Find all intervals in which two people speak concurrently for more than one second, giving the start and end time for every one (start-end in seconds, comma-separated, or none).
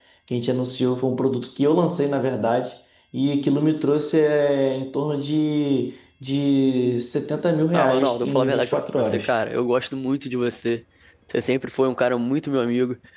7.7-9.2